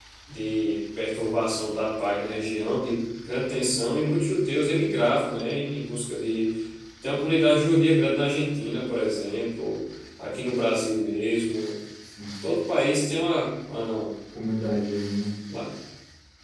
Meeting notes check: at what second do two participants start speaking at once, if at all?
none

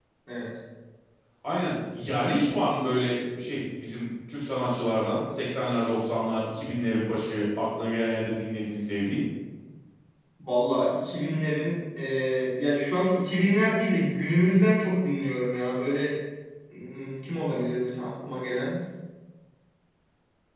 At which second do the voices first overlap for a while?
none

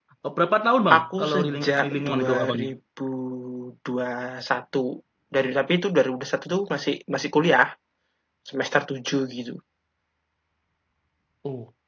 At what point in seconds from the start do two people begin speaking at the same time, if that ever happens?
1.0 s

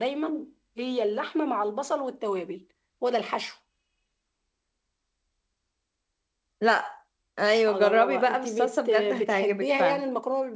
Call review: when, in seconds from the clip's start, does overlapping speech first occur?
7.7 s

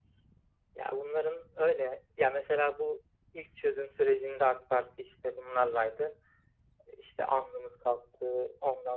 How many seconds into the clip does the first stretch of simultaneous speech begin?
none

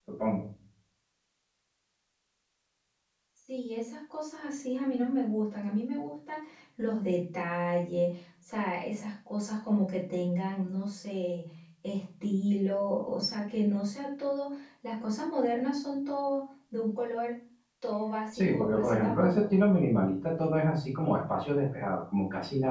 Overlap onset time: 18.3 s

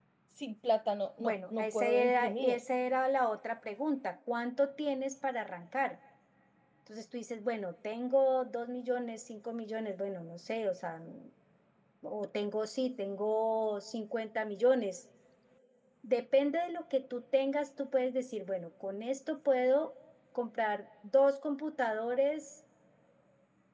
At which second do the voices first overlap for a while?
1.2 s

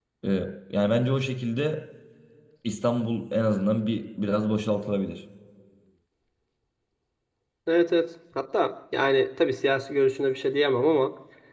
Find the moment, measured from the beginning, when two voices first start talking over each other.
none

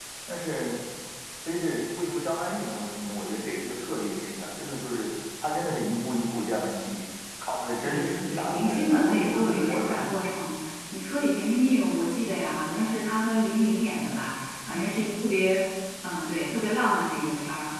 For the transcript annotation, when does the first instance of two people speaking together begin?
7.8 s

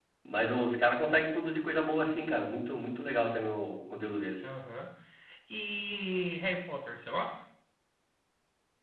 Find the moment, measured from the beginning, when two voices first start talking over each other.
none

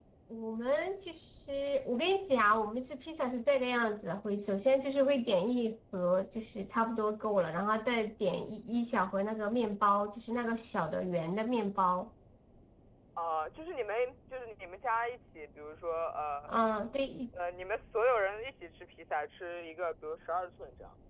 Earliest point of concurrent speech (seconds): none

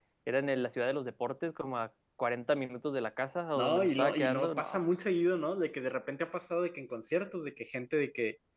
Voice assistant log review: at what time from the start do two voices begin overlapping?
3.6 s

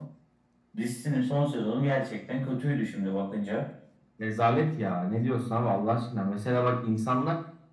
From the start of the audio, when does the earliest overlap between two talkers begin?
none

